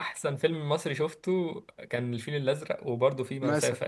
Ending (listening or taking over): taking over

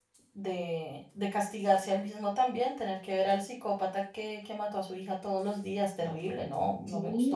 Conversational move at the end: taking over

